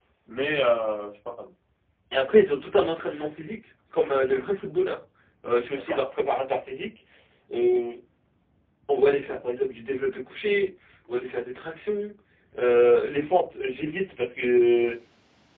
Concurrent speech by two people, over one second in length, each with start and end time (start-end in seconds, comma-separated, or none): none